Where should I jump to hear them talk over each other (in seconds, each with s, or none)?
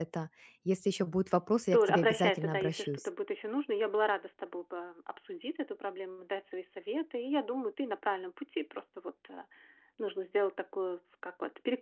1.7 s